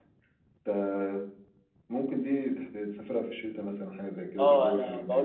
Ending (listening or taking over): taking over